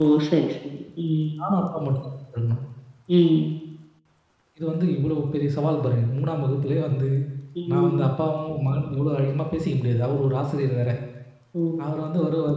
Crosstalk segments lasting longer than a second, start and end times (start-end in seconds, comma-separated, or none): none